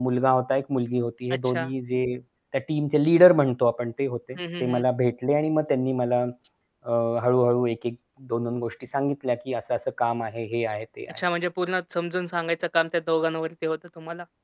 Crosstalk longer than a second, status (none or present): none